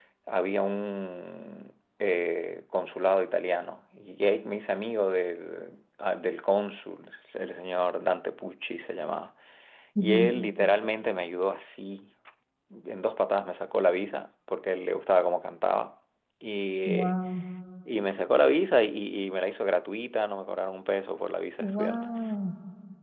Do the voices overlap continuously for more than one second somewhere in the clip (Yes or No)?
No